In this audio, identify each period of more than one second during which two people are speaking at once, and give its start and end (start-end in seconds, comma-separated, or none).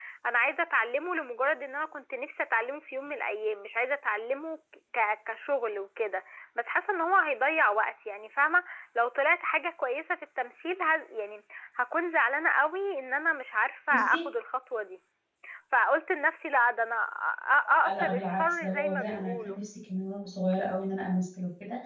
17.9-19.6